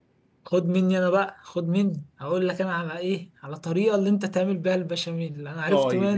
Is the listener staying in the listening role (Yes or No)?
No